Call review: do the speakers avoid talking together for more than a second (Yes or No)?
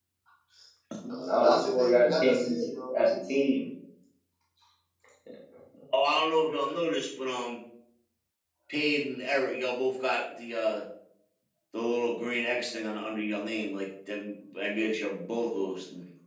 No